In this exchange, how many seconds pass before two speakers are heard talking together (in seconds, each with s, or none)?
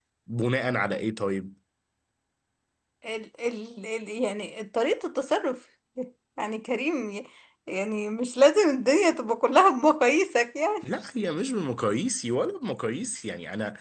none